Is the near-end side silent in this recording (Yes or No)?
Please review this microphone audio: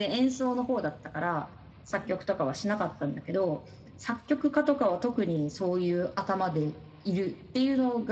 Yes